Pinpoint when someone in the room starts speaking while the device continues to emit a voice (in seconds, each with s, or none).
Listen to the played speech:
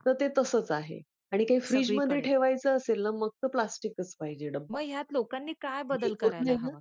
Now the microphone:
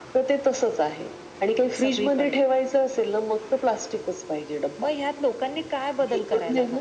none